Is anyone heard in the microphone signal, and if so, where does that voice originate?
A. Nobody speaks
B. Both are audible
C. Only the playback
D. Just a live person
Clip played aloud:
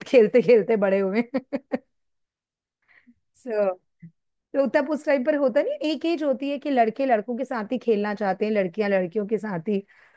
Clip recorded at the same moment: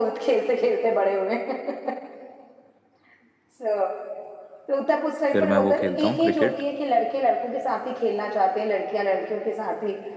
B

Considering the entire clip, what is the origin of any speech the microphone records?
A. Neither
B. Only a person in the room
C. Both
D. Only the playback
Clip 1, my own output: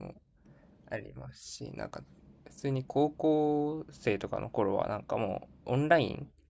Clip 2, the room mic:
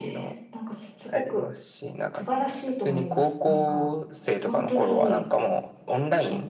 C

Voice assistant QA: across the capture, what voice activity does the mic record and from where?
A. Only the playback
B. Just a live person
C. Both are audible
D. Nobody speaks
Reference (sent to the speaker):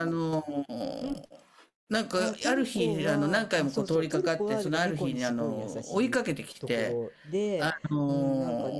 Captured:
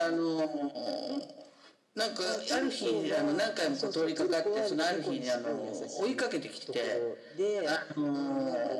A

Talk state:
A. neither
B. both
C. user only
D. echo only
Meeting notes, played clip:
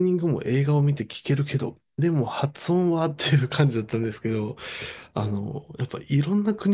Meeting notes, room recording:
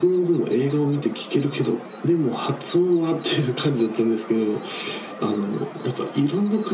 D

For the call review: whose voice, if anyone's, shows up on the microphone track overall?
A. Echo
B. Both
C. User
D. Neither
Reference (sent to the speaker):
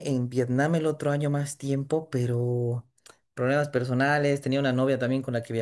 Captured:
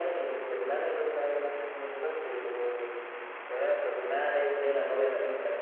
A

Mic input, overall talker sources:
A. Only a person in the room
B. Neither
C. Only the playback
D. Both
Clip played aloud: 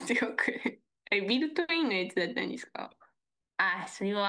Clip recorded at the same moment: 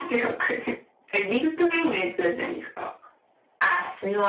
C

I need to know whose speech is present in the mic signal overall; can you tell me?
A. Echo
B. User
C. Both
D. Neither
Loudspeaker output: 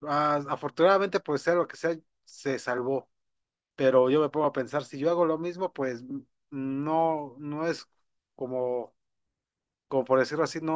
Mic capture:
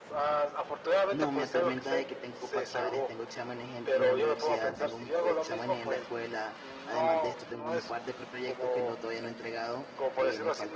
C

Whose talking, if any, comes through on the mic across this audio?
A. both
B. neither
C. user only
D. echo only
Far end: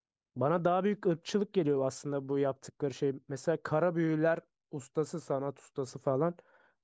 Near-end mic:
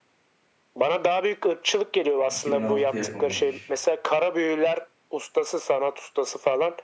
A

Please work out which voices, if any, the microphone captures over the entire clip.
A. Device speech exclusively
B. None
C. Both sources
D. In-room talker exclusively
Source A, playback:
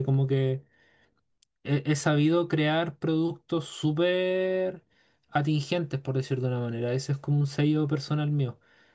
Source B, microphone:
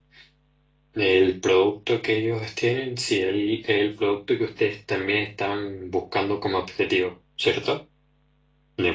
D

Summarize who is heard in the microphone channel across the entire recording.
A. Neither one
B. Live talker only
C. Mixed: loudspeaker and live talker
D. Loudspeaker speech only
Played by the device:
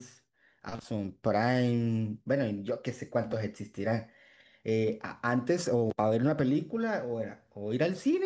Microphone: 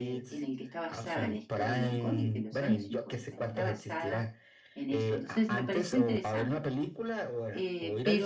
C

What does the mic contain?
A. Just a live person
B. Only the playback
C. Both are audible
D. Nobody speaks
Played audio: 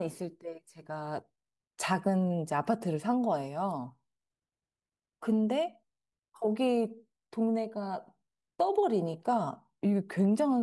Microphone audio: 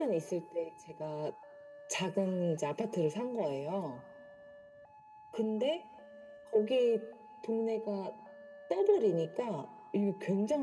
B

